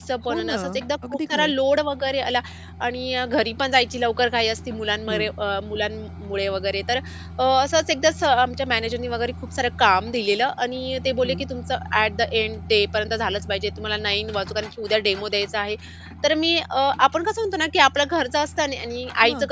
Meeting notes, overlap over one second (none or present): none